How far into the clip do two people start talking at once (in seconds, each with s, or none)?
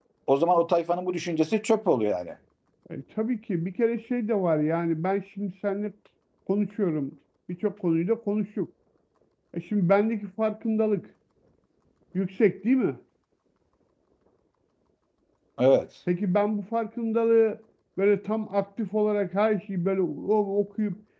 none